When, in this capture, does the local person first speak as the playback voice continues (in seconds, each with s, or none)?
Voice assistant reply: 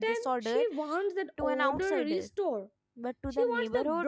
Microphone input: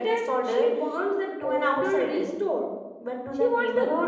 none